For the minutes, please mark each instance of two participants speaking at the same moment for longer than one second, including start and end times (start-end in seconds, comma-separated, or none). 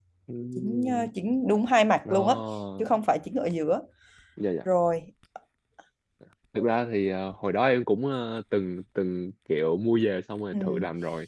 none